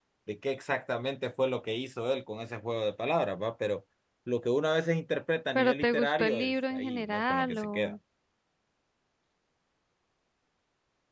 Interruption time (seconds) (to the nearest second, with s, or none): 6 s